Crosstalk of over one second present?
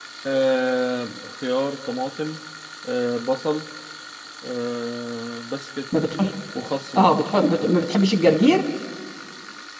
No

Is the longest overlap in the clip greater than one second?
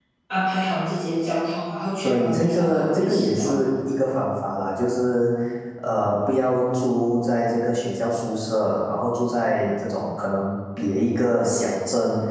Yes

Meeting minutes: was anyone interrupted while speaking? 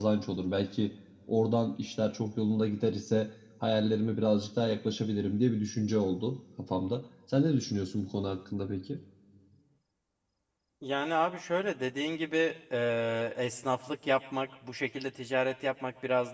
No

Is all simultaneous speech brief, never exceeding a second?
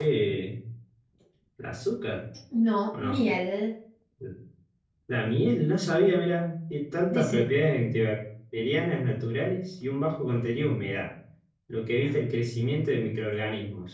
Yes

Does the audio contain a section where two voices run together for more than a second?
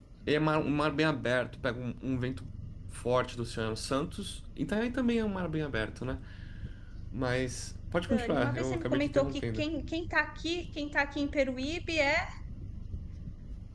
Yes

